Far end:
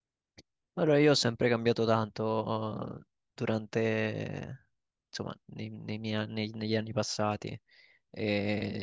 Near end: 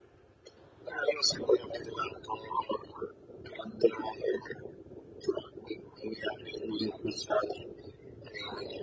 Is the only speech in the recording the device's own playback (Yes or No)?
Yes